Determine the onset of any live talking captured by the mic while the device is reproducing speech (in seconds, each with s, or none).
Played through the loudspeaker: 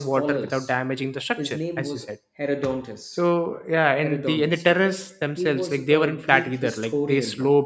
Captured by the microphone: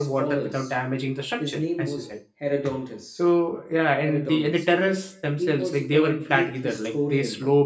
none